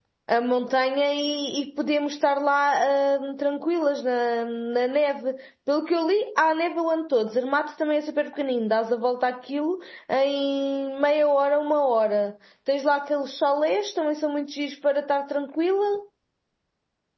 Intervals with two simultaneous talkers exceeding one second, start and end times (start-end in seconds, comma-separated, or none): none